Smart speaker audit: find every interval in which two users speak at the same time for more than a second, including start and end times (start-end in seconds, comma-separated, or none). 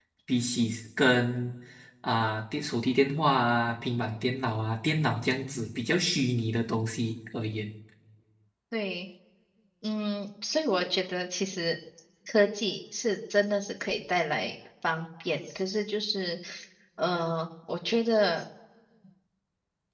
none